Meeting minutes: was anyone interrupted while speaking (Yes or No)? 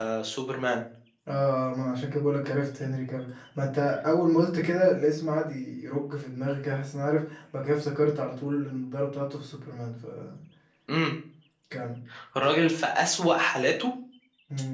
No